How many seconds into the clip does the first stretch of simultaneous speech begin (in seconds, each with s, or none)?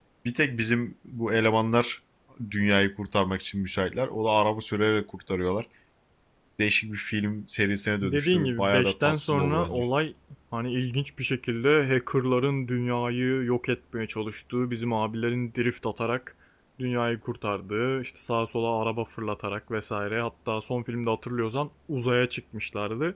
8.0 s